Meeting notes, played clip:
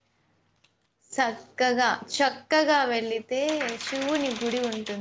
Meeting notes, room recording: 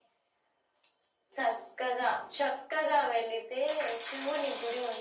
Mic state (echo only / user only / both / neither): echo only